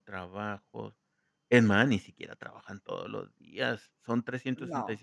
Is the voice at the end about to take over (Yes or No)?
No